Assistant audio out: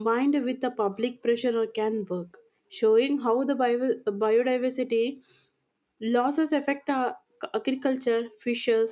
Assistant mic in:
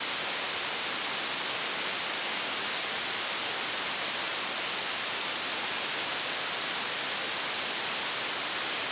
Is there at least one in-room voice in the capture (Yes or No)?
No